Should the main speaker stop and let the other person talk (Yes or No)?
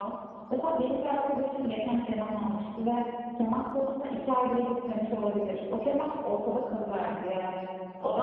No